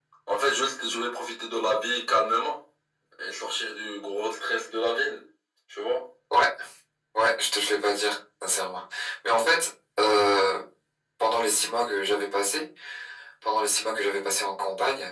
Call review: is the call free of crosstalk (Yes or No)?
Yes